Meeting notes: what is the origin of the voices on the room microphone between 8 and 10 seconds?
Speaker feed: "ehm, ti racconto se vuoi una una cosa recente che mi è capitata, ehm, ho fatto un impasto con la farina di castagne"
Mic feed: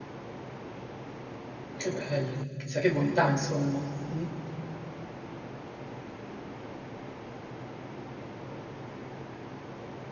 neither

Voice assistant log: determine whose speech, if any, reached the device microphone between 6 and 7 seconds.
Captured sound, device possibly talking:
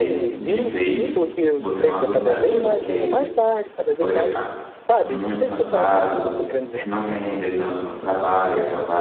both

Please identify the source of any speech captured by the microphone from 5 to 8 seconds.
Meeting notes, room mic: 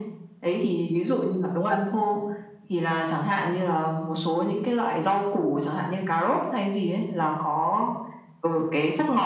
echo only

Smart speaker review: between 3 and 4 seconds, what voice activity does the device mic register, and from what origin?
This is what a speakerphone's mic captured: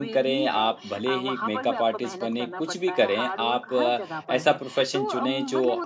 both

